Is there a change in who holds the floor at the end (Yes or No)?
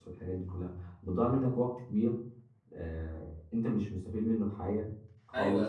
Yes